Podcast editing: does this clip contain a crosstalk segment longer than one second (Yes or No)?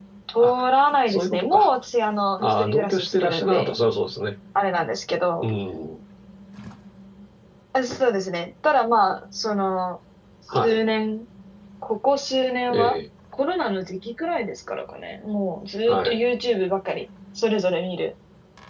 Yes